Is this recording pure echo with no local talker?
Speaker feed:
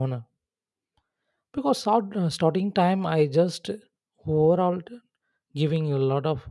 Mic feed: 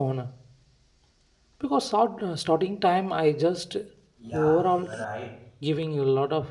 No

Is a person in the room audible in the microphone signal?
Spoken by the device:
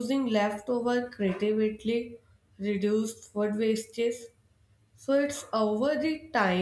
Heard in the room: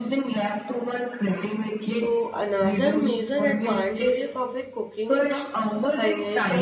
Yes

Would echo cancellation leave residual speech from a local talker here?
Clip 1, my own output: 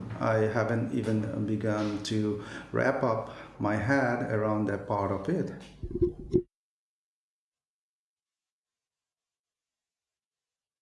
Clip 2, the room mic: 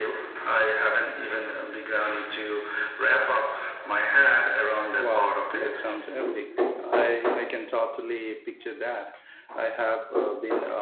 Yes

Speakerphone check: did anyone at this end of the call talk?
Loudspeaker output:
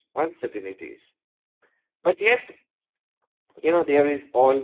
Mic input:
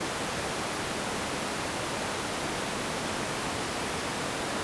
No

